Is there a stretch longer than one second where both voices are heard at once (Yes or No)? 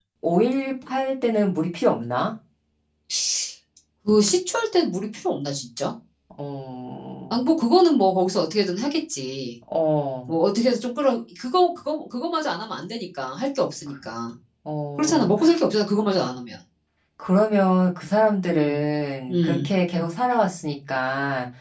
No